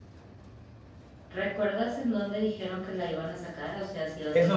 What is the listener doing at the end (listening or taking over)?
taking over